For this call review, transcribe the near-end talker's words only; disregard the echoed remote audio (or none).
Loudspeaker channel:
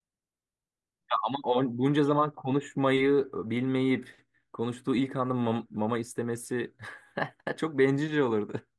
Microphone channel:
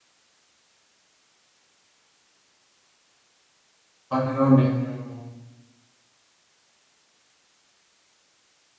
Ay, inan bilmiyorum.